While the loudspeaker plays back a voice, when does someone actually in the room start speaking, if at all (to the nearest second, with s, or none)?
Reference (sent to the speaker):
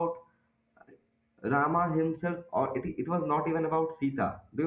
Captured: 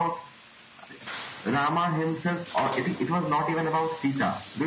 none